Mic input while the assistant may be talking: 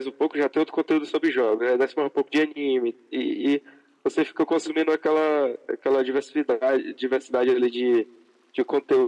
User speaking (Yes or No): No